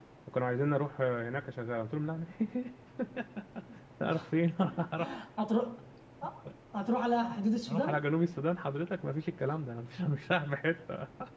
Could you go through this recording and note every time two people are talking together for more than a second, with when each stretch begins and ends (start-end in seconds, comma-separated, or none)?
none